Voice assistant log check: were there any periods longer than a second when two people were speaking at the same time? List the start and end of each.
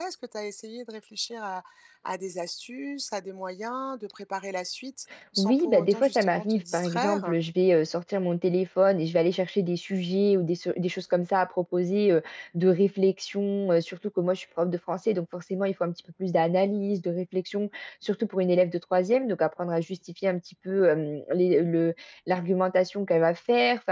5.4-7.4

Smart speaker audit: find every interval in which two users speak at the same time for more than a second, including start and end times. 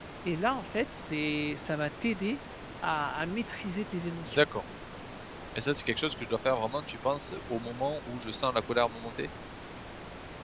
none

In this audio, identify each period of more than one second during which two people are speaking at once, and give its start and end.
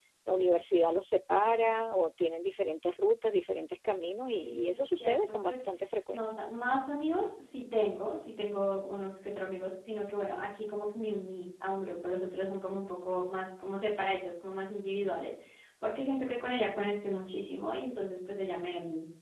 4.3-5.7

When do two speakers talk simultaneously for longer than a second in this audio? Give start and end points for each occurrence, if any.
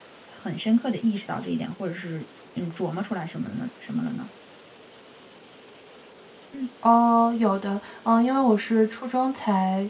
none

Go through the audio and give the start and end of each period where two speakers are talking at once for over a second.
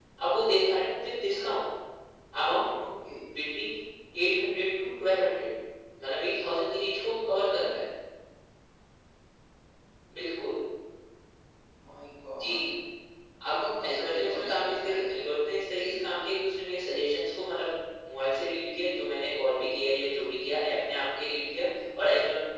13.4-15.2

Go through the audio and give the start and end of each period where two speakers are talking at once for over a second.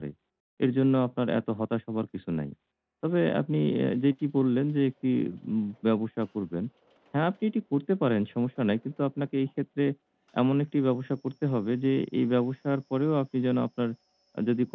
none

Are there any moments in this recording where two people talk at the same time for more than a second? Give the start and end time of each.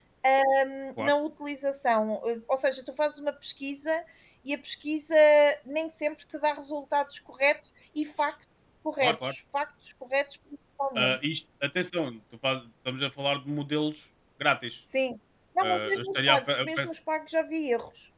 15.6-16.9

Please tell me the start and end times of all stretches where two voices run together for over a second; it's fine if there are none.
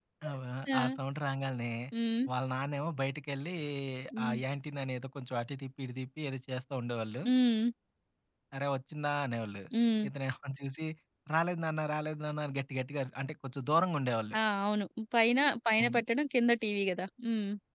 none

